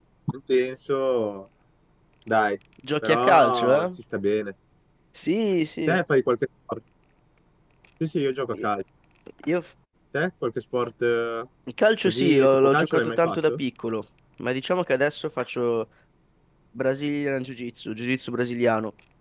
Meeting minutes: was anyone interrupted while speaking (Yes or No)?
Yes